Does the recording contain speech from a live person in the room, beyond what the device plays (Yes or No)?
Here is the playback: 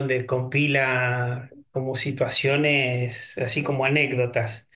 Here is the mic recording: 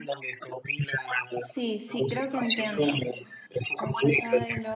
Yes